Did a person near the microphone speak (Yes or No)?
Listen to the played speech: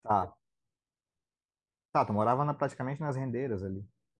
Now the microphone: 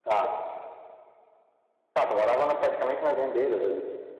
No